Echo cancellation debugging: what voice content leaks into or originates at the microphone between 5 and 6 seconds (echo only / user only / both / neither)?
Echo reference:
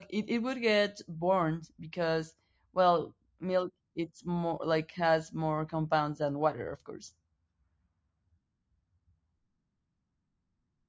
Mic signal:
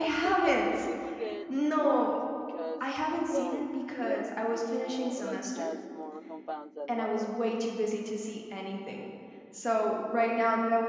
both